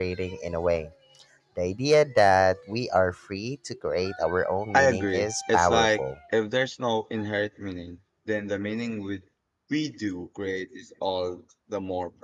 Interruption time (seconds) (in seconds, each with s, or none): 4.7 s